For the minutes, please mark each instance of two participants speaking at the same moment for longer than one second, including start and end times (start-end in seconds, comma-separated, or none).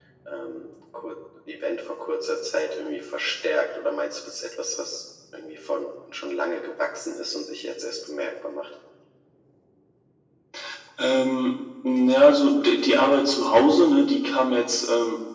none